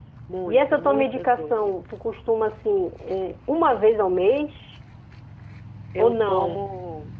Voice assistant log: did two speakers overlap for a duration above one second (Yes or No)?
Yes